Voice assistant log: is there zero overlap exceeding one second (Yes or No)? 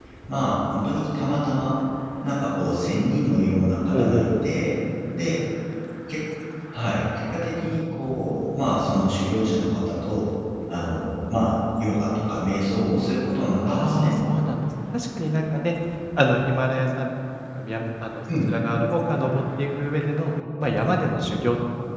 Yes